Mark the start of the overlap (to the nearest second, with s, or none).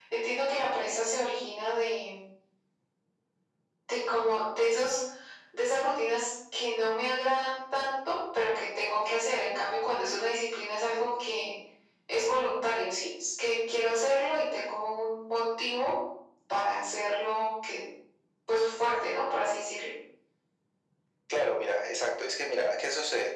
none